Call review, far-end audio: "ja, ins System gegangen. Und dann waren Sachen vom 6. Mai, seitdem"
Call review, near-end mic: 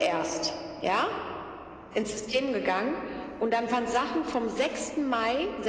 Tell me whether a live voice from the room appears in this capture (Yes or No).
No